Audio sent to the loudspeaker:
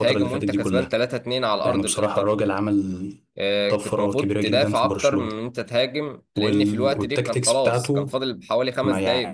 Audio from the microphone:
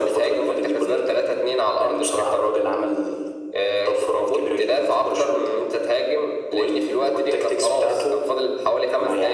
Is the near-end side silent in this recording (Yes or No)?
Yes